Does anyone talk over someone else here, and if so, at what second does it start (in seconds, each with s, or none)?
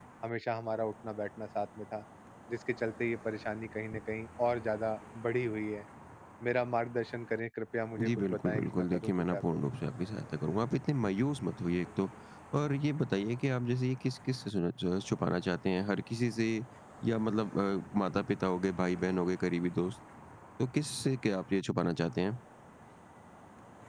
8.0 s